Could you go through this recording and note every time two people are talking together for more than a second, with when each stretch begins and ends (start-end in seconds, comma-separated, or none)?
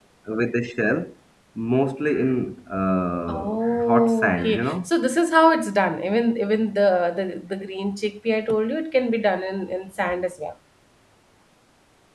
3.3-4.9